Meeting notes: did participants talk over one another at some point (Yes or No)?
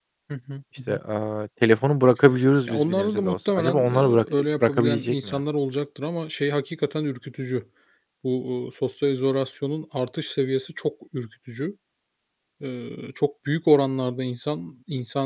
Yes